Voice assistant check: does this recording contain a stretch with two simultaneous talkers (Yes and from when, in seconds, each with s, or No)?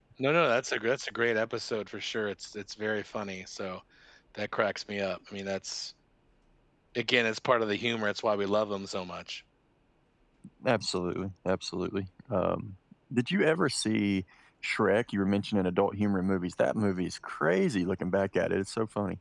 No